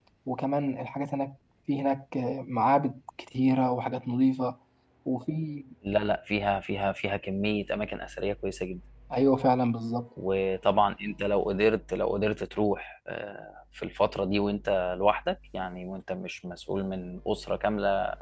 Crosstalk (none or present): none